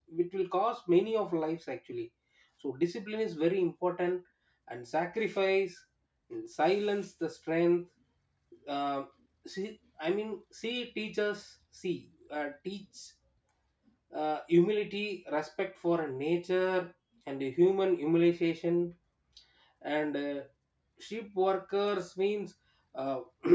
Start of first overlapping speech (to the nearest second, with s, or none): none